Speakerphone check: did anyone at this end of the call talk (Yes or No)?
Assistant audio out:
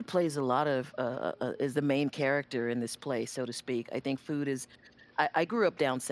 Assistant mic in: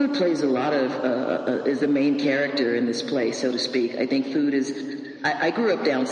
No